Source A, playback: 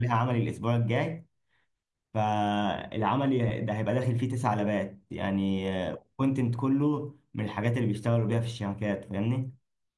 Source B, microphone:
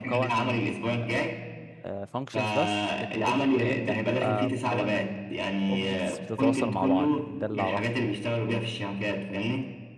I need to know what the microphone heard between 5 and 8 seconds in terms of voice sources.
both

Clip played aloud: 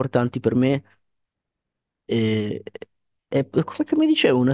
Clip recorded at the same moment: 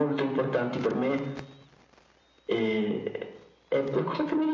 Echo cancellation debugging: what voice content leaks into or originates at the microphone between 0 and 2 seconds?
echo only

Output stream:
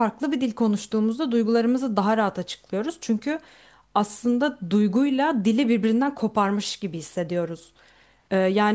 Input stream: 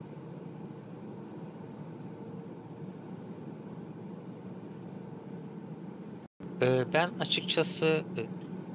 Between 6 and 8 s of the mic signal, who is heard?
user only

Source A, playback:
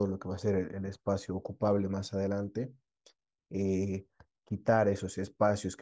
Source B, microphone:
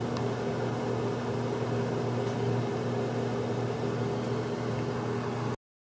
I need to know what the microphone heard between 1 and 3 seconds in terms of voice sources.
neither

